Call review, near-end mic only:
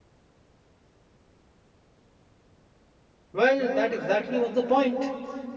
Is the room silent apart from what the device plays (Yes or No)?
No